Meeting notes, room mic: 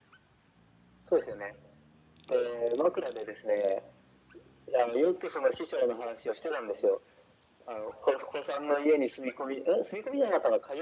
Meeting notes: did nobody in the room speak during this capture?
Yes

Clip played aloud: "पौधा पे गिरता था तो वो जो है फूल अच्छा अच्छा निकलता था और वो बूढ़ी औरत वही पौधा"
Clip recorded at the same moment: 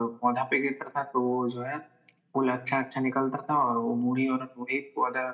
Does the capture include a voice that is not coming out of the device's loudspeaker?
No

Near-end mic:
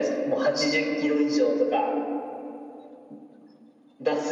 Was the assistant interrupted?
No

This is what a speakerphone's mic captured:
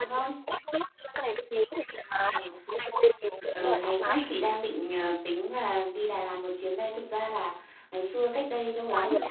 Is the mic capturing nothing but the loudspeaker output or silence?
No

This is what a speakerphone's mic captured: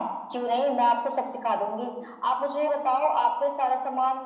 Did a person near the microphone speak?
No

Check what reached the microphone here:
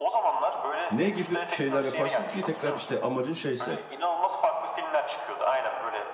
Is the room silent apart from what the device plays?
No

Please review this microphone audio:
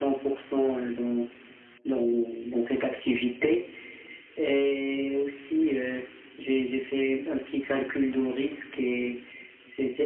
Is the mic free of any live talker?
Yes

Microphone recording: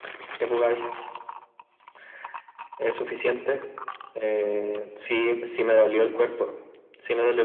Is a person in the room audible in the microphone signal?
No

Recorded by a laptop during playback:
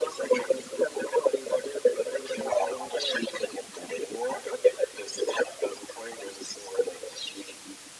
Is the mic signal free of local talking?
Yes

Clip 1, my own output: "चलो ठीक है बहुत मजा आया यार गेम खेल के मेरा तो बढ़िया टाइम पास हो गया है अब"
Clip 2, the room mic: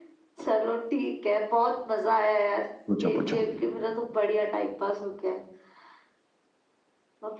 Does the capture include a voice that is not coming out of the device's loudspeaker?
Yes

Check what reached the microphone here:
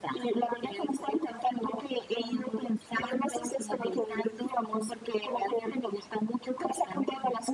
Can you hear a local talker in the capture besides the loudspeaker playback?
No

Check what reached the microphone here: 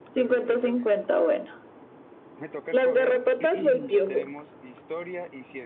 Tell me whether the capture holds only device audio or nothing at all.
No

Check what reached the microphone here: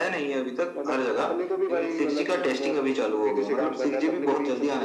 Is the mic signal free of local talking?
Yes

